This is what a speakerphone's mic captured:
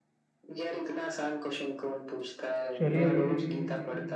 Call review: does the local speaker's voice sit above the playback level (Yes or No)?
Yes